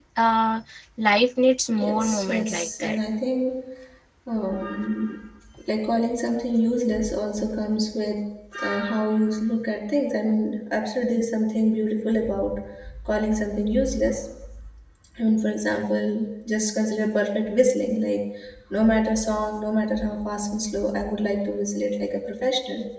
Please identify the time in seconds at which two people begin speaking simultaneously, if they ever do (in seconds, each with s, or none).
1.7 s